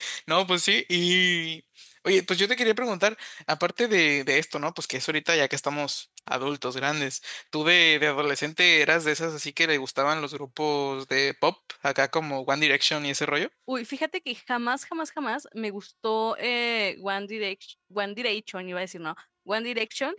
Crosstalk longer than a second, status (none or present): none